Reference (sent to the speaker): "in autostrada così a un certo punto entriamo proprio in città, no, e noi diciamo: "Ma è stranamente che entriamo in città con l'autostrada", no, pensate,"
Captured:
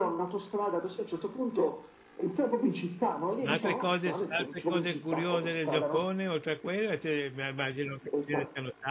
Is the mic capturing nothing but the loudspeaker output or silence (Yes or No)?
No